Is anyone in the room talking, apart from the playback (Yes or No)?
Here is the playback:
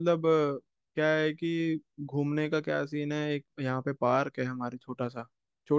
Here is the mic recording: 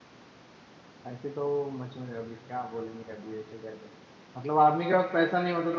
Yes